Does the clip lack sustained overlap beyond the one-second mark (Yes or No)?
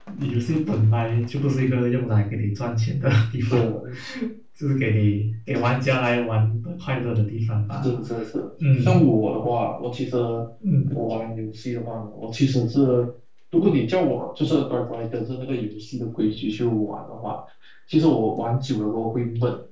Yes